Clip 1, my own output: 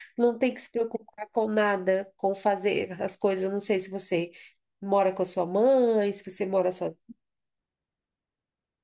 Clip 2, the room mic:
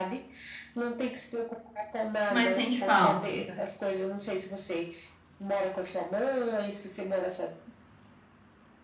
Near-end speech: present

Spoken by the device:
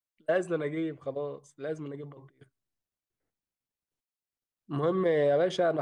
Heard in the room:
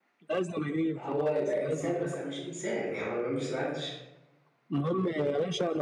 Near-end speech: present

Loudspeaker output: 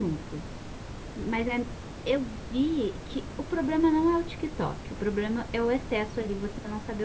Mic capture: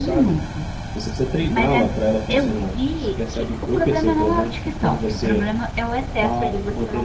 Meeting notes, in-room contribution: present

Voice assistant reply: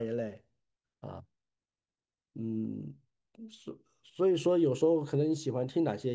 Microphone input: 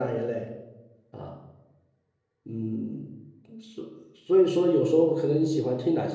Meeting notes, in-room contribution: none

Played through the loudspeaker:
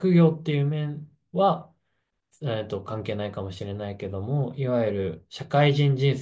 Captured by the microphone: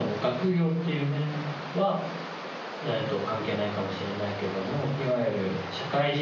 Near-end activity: none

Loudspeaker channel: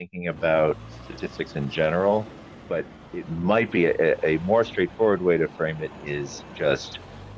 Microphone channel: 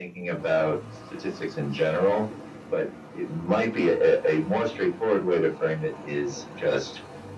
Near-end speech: none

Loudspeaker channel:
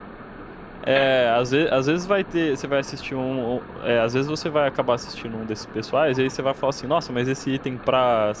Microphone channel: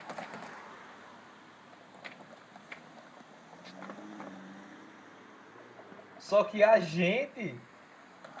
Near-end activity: present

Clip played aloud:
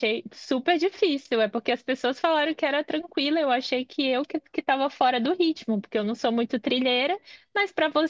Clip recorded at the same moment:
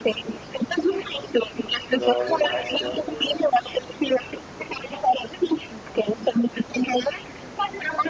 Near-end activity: present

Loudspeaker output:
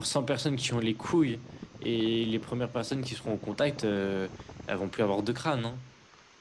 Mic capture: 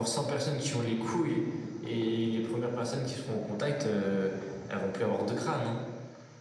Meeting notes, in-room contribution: none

